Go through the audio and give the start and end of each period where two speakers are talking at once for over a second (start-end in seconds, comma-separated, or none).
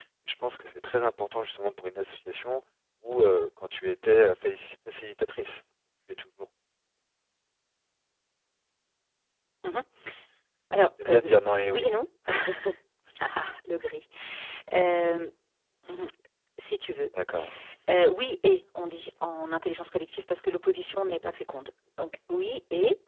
none